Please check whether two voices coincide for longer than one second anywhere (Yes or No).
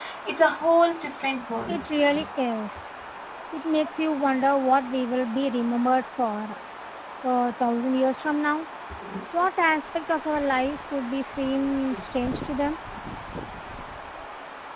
No